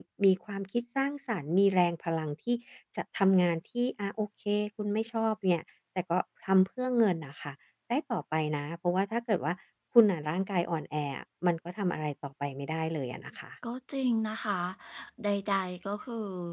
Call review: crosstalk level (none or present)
none